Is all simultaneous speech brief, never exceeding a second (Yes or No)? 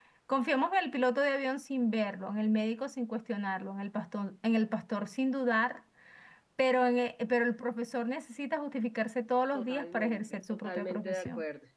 No